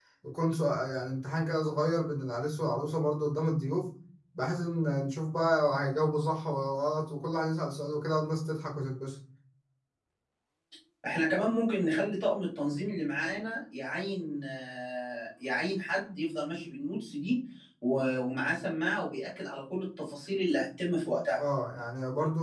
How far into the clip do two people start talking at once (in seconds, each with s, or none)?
none